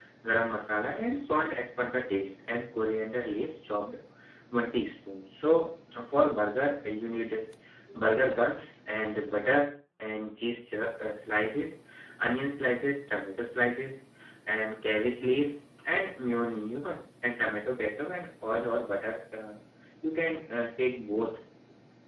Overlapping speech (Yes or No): No